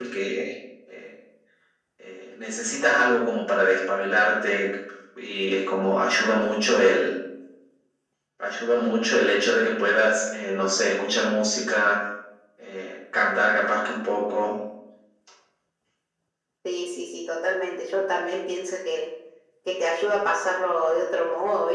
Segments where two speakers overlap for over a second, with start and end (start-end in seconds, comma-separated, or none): none